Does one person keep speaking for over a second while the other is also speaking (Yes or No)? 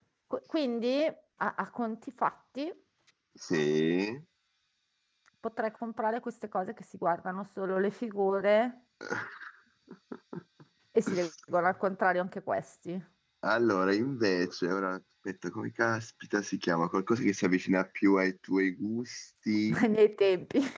No